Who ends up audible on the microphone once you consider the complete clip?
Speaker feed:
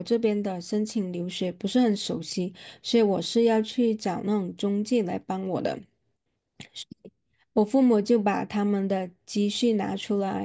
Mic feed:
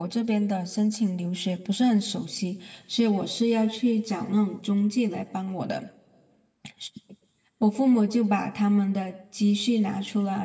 echo only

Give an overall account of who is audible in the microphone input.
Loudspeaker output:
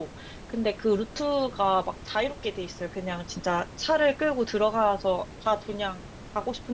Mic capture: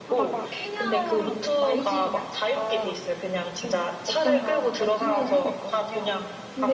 both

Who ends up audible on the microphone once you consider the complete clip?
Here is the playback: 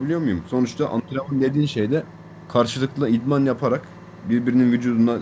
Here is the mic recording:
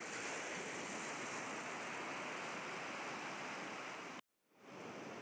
neither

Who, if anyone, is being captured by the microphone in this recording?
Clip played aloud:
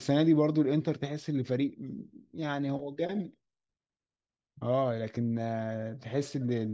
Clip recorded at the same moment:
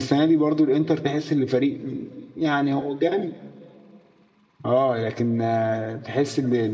echo only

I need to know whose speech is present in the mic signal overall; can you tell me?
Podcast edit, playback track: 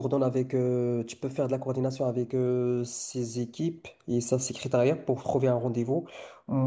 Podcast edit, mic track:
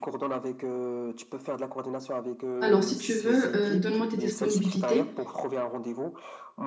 both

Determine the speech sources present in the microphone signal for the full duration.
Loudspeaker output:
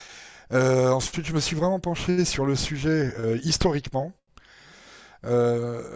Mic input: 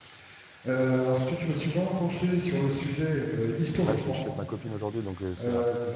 both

